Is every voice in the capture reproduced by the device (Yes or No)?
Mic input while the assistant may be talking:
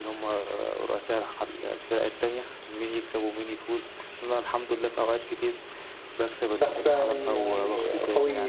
No